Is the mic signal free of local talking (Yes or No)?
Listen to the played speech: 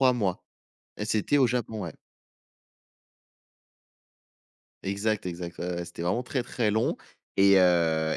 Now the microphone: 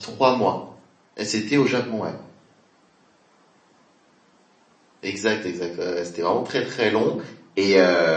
Yes